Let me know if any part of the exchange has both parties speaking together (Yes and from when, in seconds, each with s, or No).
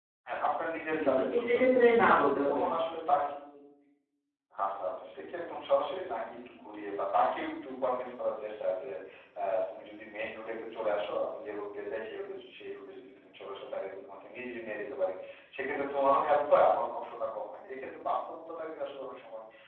Yes, from 0.9 s